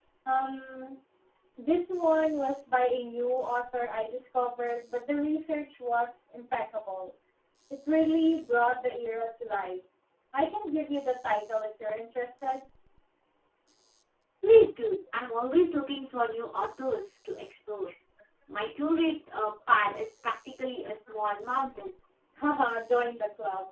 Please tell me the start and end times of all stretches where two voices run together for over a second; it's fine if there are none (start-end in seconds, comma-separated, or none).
none